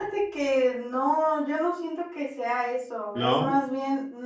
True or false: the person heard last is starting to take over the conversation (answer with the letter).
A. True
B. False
B